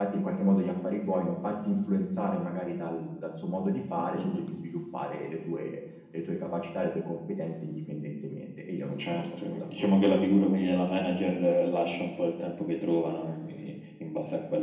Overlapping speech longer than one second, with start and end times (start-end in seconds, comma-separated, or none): 9.0-10.4